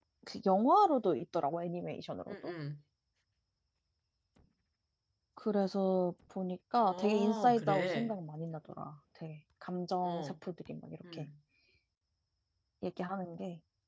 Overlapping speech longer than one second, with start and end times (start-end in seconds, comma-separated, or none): 6.8-8.2